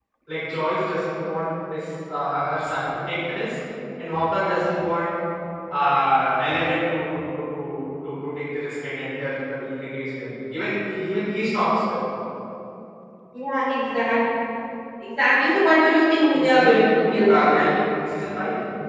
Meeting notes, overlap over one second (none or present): present